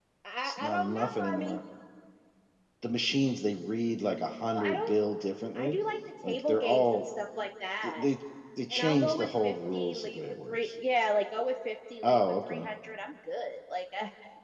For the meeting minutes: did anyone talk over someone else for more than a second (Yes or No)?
Yes